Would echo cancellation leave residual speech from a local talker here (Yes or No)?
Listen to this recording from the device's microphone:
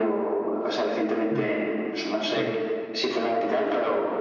Yes